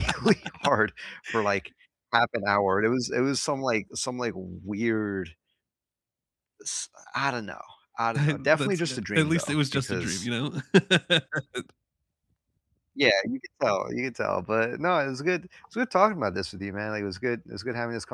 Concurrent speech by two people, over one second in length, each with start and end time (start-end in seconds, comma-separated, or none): 8.2-10.3